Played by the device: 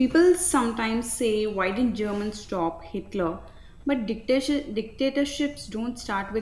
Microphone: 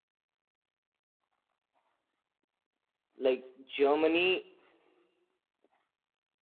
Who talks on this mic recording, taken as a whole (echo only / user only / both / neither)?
user only